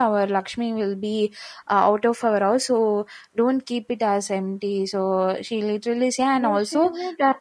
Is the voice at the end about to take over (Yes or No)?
Yes